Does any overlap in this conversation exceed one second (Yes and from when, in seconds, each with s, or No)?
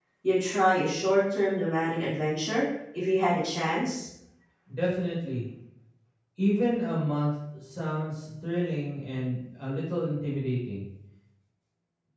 No